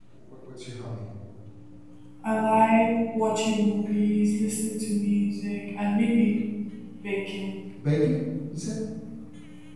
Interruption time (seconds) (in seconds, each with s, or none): none